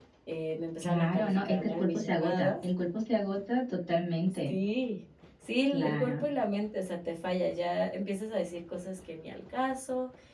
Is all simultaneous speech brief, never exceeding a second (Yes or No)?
No